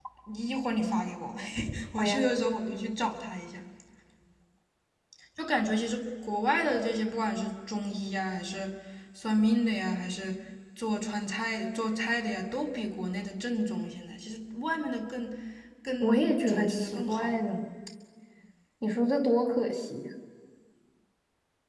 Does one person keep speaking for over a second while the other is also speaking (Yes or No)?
Yes